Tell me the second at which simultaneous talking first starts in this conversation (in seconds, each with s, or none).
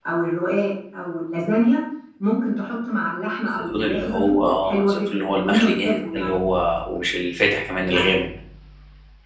3.6 s